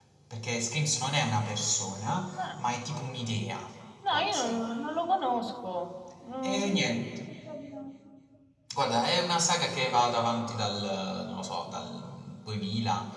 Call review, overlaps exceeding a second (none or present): none